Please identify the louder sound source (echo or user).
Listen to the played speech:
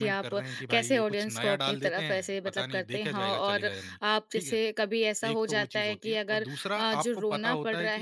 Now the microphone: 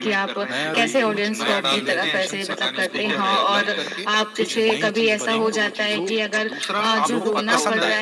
echo